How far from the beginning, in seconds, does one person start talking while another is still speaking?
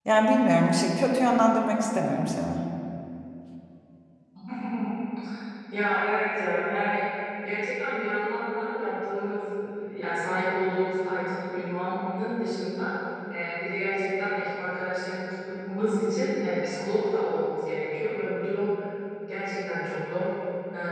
none

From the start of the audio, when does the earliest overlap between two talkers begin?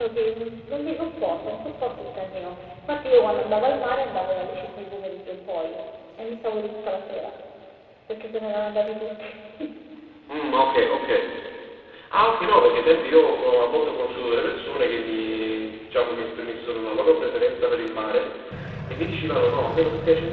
none

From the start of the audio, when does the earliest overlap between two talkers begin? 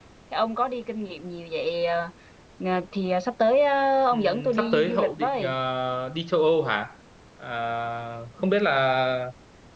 4.1 s

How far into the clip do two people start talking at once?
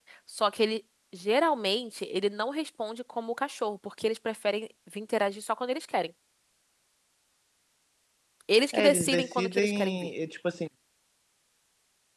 8.7 s

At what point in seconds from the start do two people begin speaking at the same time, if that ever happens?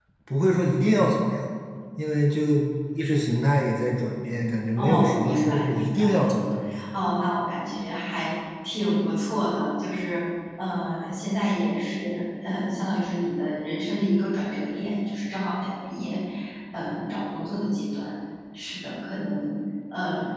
4.8 s

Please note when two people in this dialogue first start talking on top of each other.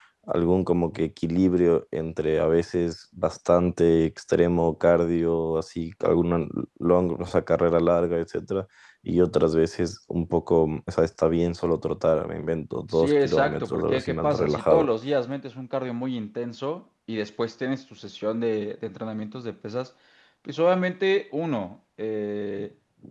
12.9 s

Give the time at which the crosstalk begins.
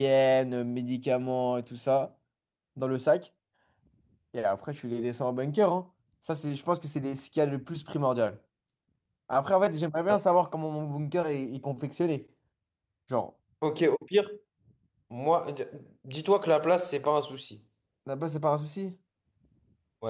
none

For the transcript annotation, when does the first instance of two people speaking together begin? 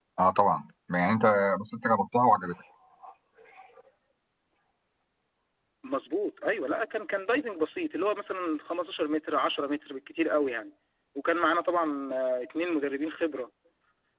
none

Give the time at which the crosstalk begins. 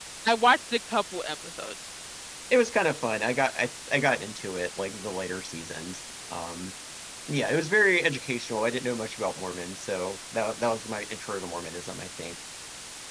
none

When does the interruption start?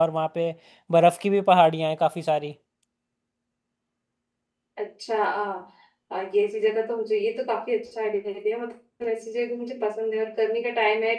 none

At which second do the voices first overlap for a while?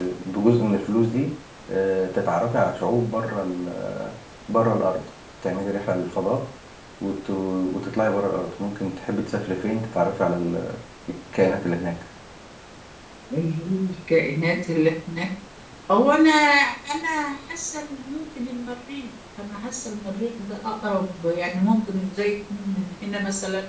none

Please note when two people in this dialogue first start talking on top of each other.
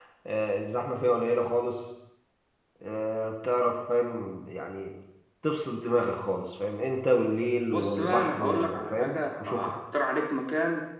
7.7 s

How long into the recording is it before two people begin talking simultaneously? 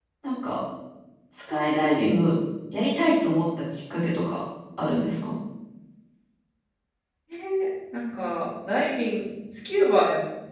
none

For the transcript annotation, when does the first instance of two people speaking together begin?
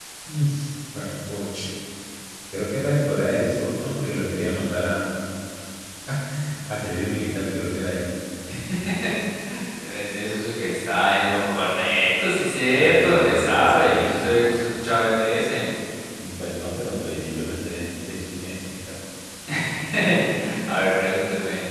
12.8 s

